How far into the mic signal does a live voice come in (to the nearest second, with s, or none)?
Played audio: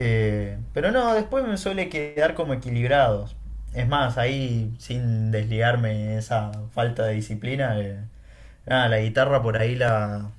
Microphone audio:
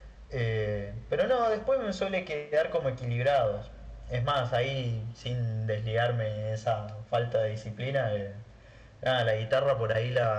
none